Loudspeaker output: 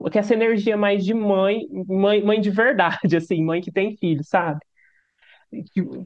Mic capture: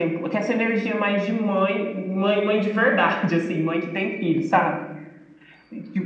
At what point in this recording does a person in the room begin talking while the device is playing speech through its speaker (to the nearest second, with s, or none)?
none